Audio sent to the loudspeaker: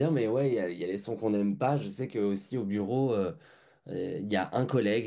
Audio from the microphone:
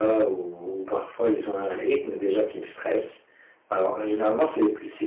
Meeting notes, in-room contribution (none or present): present